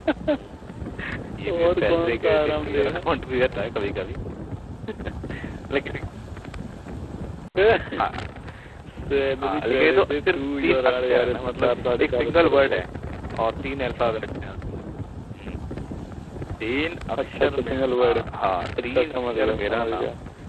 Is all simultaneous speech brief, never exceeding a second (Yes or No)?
No